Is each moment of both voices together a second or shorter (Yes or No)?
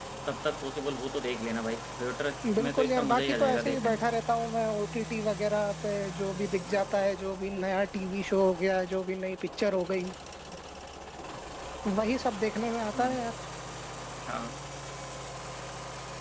No